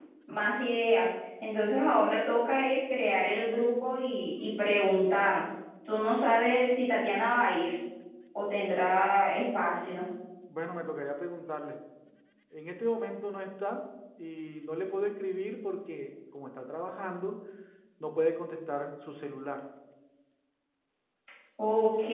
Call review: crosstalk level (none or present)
none